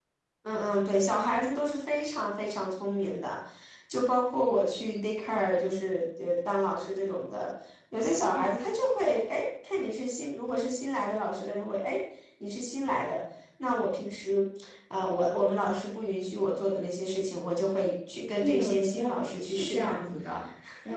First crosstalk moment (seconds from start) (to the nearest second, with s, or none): 18 s